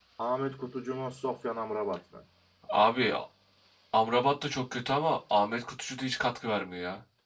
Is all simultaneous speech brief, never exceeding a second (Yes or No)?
Yes